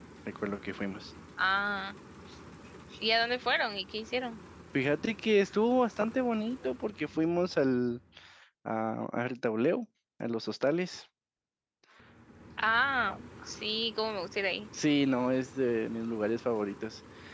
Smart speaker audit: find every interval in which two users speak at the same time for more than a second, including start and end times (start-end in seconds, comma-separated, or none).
none